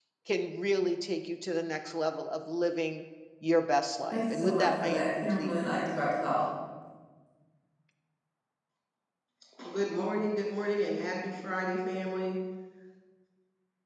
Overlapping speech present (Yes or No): Yes